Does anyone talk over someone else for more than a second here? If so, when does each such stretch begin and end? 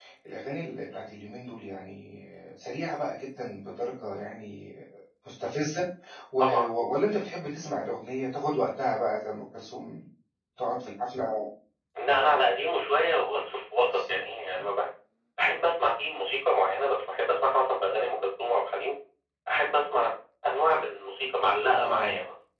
none

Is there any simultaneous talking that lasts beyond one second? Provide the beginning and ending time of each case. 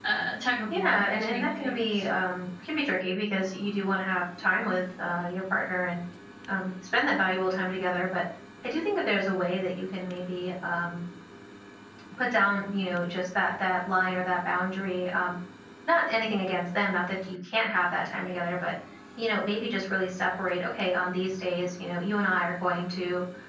0.7-2.1

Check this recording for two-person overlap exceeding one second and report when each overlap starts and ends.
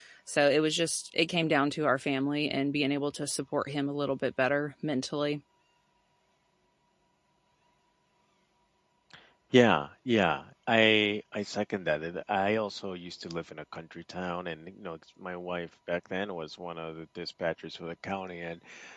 none

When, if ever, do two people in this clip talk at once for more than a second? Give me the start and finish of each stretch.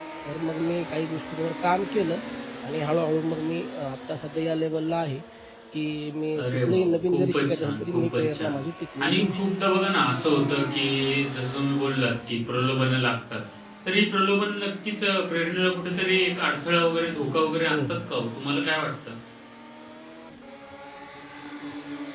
6.4-8.6

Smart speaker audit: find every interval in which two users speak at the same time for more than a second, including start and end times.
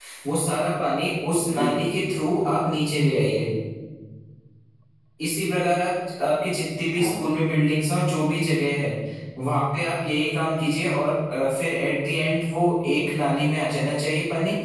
1.5-2.8

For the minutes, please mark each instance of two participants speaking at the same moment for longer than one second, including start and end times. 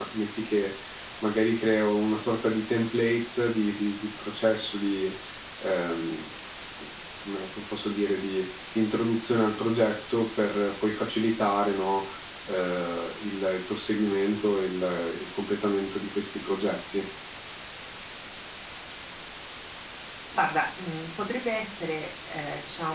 none

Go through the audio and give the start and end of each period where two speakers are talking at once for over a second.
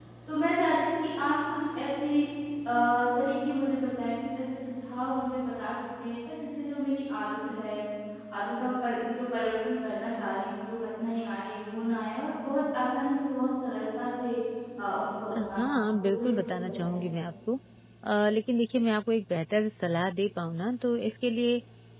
15.4-17.0

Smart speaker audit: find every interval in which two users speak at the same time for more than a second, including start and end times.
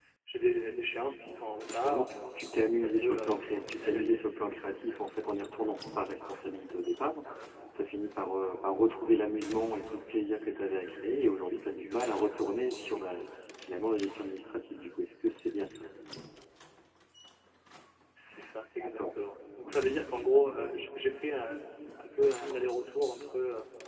2.8-4.2

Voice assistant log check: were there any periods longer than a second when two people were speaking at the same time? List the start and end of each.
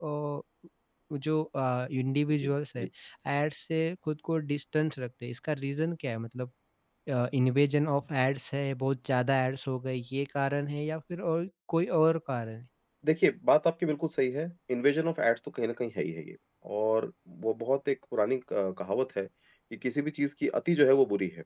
none

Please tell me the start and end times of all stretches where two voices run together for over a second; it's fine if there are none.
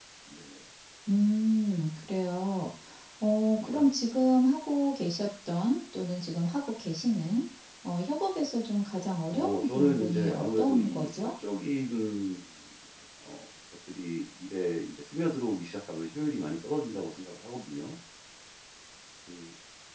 9.3-11.3

